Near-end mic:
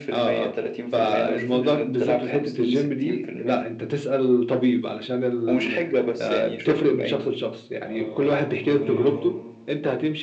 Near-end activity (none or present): present